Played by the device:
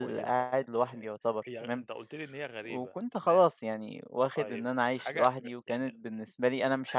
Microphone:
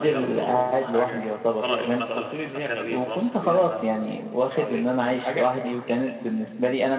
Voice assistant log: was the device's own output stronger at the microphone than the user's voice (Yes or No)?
Yes